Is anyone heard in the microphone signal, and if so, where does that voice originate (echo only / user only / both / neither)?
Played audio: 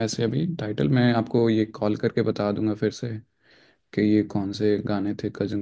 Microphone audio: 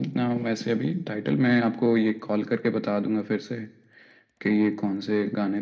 echo only